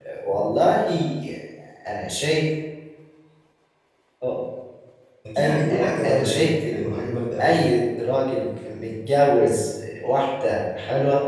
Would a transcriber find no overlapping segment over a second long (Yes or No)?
No